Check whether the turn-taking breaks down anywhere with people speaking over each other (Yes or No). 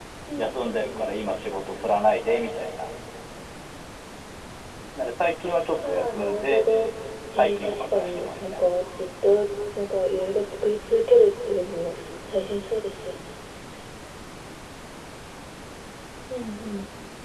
Yes